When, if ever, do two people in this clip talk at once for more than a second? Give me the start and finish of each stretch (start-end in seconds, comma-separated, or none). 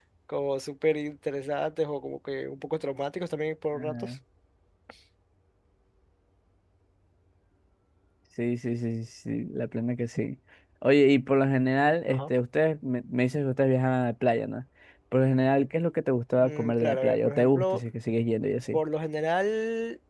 16.4-17.8